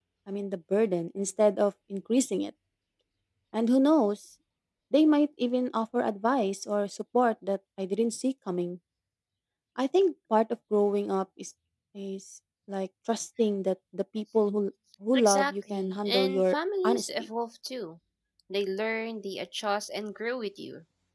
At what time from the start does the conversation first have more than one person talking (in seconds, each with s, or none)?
15.1 s